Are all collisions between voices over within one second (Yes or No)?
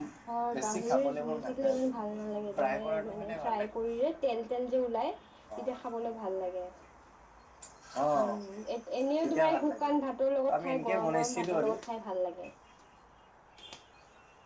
No